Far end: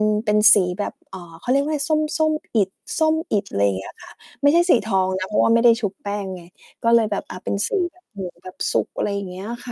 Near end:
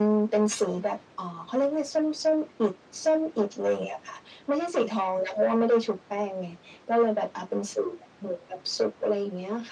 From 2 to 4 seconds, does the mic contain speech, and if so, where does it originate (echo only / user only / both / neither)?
echo only